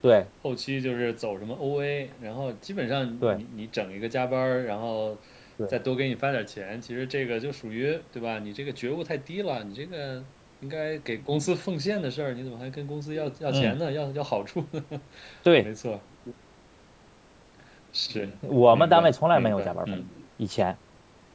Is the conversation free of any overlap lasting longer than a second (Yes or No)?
No